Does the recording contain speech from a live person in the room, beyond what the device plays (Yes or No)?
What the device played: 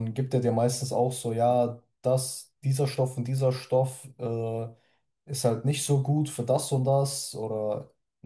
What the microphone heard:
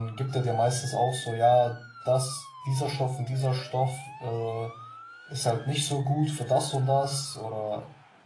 No